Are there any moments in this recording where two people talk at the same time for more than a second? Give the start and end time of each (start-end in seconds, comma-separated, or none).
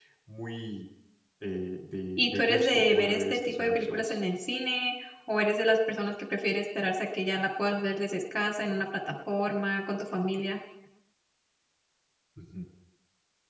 2.2-4.0